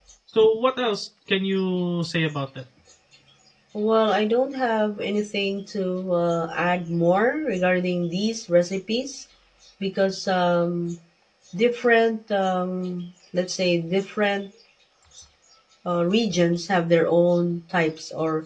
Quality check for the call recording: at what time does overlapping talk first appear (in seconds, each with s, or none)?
none